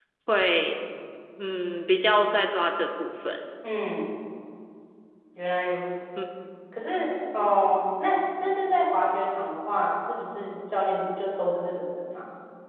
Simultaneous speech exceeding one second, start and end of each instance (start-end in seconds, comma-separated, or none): none